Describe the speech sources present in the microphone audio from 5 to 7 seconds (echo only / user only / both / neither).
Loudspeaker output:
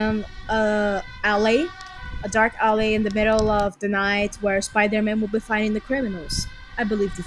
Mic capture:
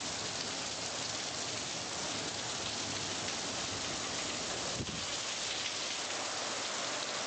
neither